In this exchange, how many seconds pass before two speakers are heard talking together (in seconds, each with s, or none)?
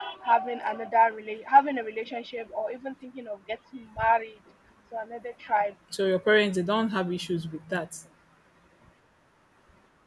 none